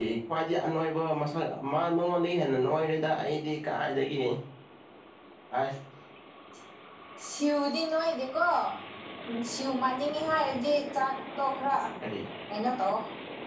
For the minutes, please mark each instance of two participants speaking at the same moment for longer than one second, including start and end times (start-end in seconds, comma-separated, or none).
none